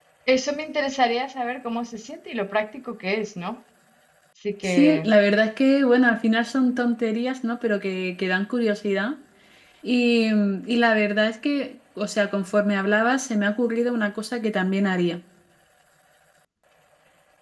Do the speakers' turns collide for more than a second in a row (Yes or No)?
No